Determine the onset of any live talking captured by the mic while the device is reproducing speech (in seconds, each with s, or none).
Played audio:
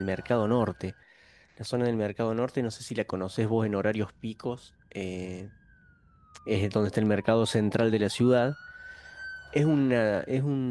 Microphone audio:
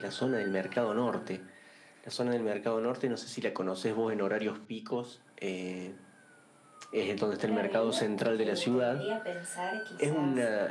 7.4 s